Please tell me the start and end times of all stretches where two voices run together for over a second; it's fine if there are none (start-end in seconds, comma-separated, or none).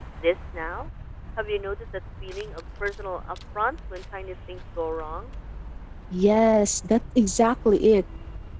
none